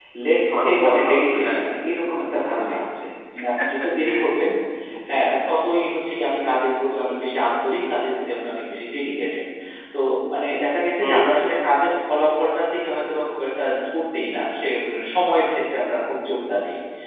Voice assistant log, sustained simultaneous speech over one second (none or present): present